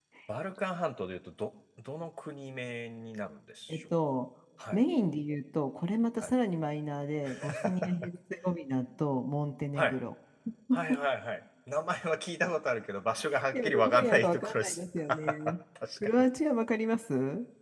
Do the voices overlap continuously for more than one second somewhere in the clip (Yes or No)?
Yes